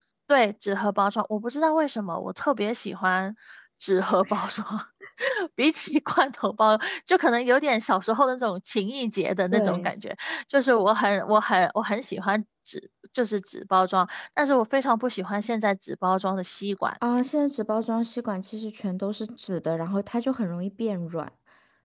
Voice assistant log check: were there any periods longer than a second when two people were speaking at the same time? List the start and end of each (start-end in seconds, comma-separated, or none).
none